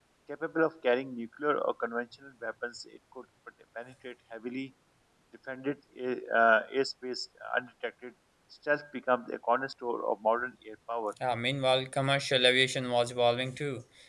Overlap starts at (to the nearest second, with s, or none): none